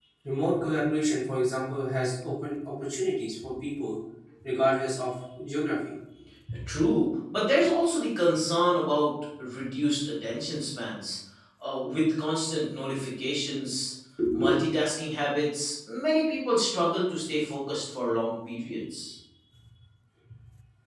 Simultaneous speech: No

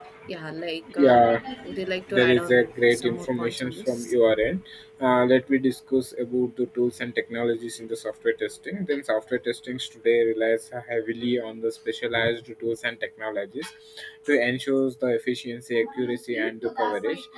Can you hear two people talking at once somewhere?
Yes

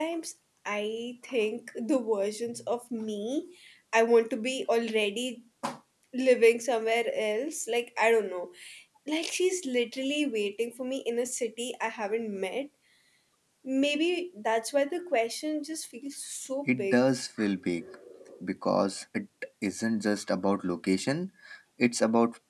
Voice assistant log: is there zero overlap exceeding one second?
Yes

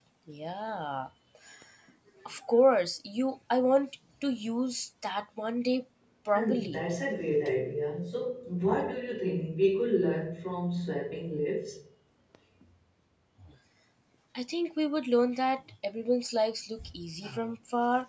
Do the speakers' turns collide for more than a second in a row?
No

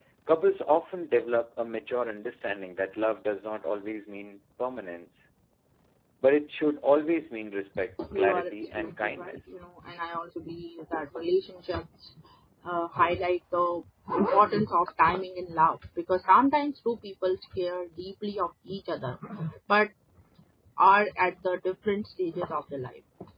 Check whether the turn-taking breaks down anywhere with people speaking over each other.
Yes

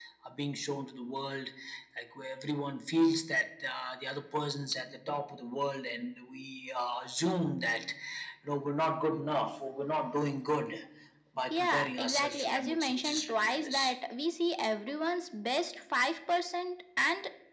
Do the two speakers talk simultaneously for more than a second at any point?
Yes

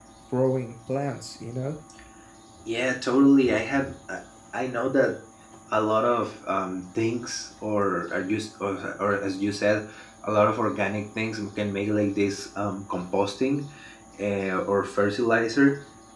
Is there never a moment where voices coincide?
Yes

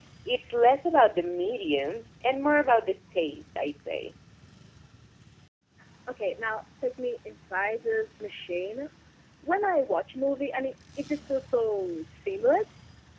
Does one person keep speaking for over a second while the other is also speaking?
No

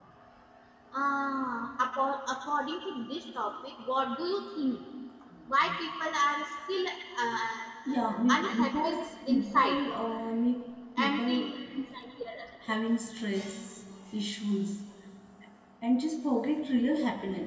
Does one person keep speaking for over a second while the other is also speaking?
Yes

